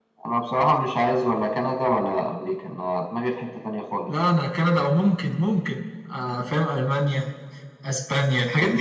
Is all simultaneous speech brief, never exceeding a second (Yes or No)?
Yes